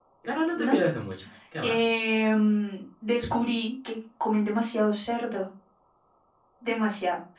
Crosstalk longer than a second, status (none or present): none